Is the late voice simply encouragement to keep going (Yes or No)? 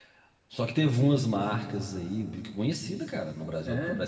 Yes